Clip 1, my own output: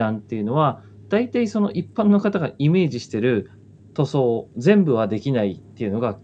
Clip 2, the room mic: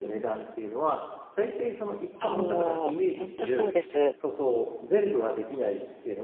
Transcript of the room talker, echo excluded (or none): そう、本当そうです。うん。